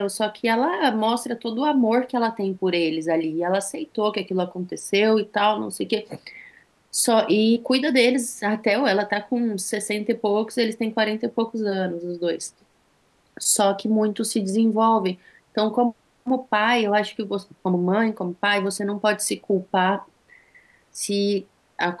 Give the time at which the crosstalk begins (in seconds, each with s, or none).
none